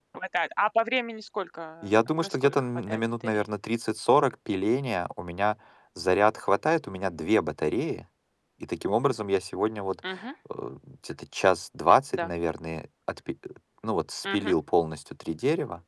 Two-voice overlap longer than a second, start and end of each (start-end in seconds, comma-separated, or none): 2.1-3.4